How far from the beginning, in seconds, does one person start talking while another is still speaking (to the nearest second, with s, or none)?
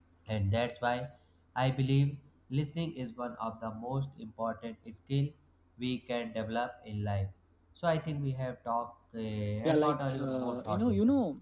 10 s